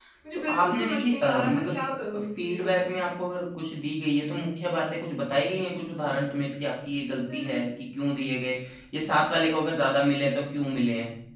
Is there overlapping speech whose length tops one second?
Yes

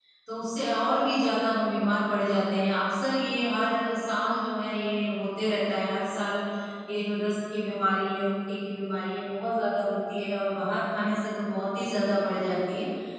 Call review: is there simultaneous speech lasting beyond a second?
No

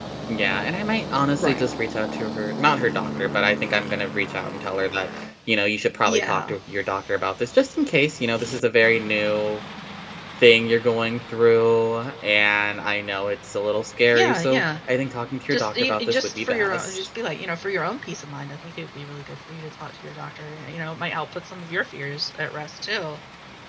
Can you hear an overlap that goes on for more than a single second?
Yes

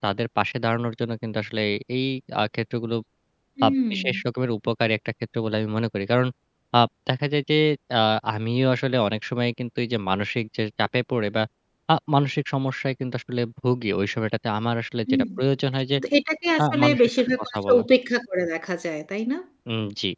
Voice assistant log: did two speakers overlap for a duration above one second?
Yes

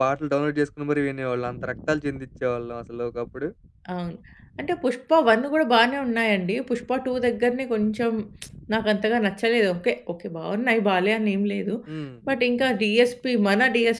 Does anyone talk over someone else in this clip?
No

